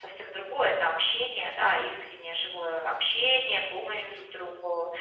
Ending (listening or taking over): listening